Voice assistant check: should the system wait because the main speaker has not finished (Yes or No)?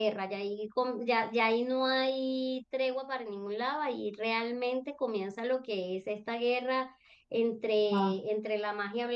Yes